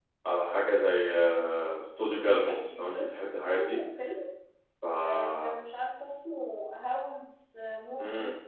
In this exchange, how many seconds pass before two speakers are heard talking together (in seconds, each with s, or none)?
2.2 s